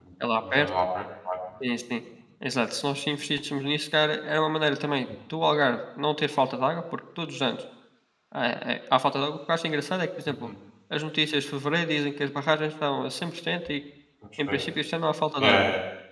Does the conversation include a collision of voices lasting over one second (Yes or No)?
No